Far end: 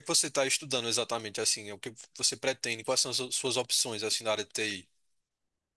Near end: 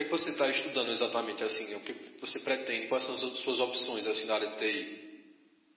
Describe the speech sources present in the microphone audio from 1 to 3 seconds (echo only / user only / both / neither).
echo only